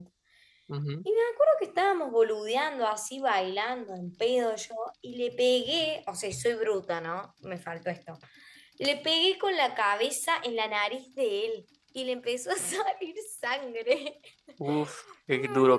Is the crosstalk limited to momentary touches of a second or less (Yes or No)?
Yes